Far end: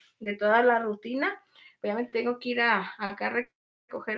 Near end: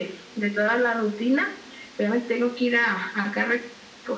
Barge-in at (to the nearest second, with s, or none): none